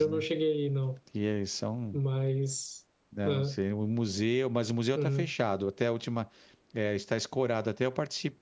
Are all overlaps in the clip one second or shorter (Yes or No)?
Yes